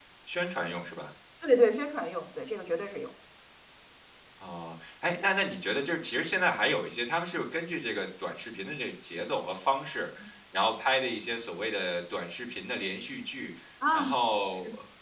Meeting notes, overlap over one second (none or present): none